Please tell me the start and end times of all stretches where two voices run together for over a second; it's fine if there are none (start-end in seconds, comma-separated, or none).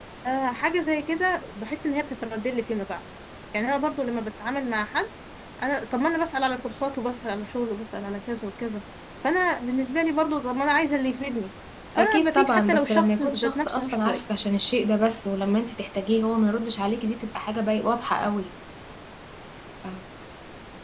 12.0-14.4